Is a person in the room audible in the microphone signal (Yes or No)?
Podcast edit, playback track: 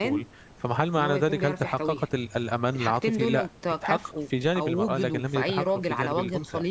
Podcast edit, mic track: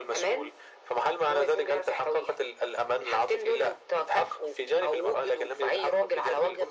No